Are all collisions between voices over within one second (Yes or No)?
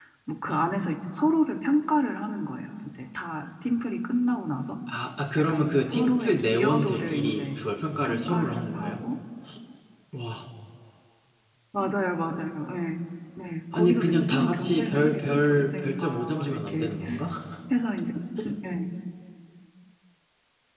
No